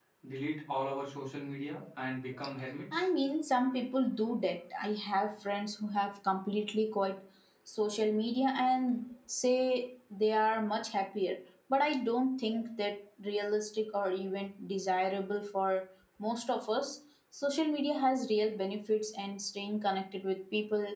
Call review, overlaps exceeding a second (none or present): none